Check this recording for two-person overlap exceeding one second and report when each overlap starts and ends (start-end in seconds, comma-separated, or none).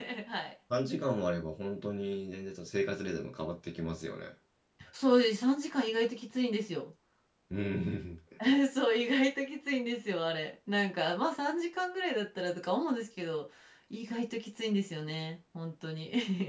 none